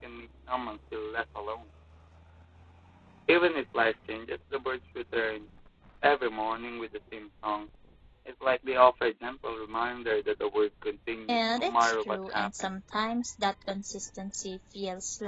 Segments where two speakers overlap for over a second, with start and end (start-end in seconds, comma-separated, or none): 11.3-12.7